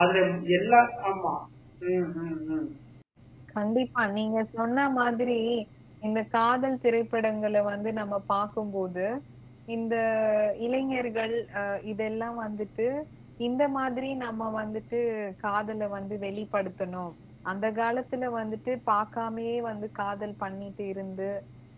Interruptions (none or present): none